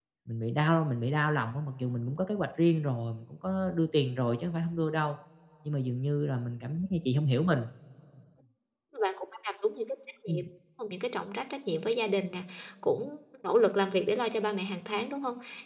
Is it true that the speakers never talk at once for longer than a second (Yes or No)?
Yes